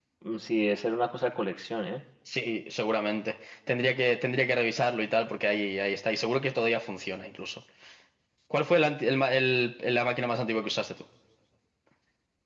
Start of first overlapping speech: none

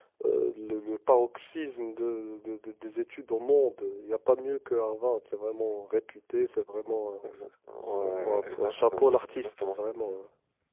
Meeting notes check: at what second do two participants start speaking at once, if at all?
8.0 s

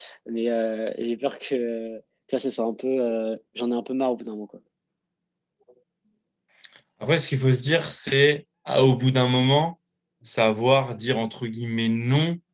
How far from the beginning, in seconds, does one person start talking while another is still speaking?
none

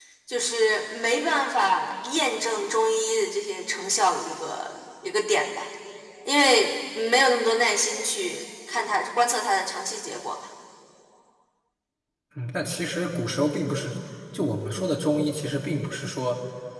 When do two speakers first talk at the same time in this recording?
none

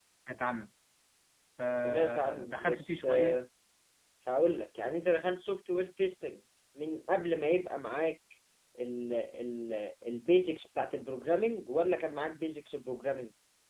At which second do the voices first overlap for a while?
1.8 s

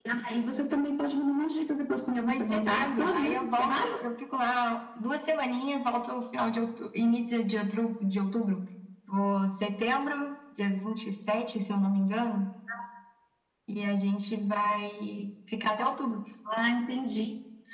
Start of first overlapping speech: 2.1 s

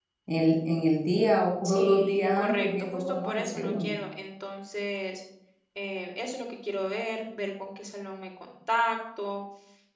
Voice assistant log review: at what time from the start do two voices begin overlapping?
1.6 s

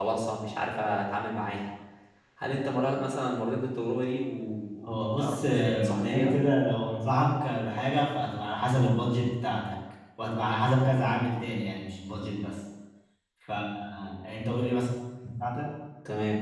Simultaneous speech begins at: 4.9 s

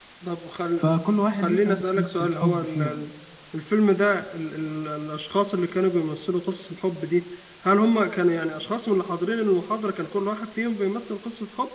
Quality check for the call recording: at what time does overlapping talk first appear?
1.3 s

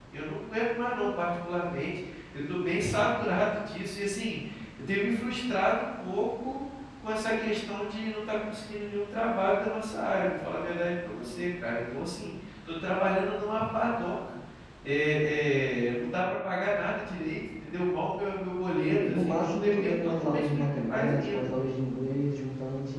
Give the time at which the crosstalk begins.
19.0 s

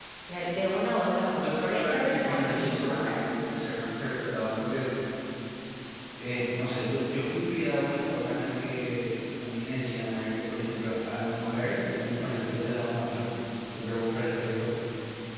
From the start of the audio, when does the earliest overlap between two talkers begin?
1.4 s

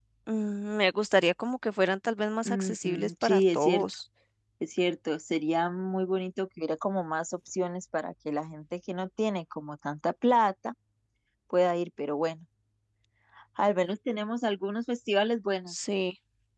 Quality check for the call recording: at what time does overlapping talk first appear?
2.4 s

